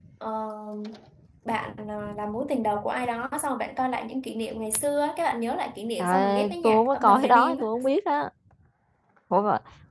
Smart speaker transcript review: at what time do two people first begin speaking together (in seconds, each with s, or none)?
6.0 s